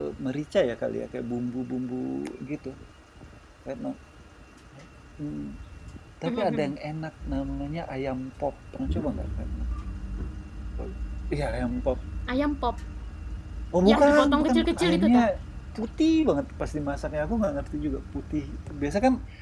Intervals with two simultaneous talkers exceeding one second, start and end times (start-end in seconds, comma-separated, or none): 13.9-15.2